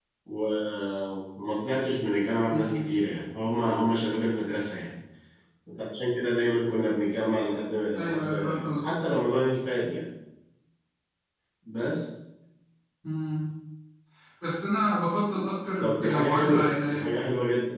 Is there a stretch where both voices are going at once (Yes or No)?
Yes